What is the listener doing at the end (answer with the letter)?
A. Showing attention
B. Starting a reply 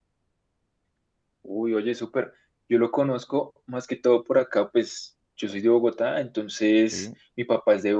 A